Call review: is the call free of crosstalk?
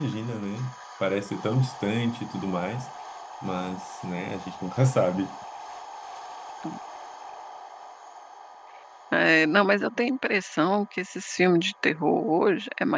Yes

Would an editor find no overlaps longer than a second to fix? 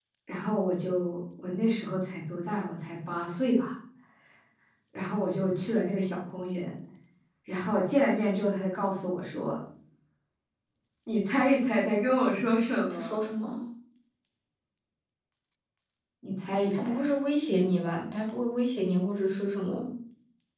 Yes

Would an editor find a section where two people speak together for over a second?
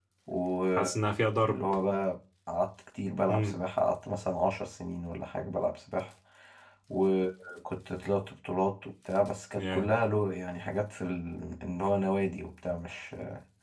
No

